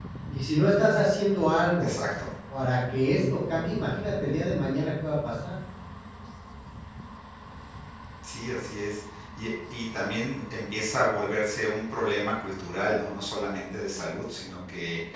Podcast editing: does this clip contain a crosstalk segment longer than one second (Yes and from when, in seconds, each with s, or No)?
No